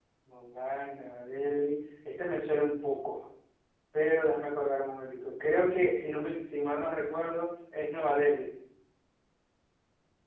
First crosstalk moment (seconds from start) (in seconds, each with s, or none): none